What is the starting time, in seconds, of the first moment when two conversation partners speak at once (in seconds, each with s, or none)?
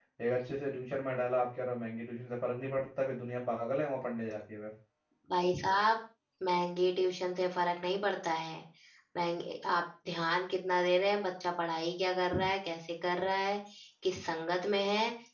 none